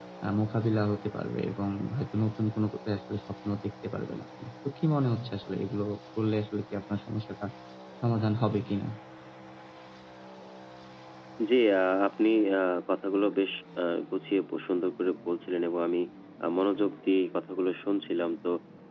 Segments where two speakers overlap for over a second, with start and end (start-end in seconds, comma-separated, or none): none